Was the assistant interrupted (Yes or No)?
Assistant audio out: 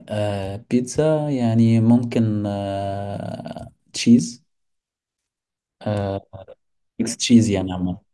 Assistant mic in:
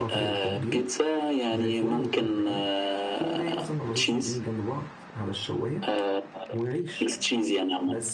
Yes